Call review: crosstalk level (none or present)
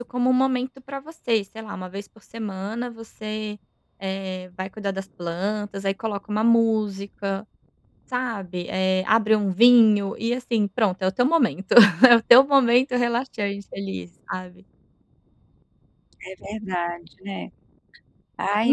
none